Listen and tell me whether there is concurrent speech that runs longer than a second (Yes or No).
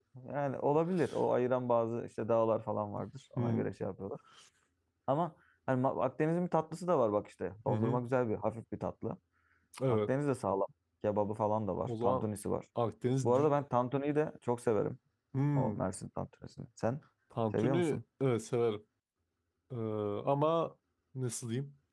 No